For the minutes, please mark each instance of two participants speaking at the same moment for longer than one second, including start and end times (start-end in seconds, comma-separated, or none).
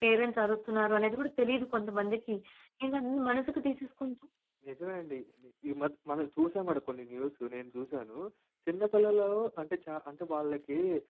none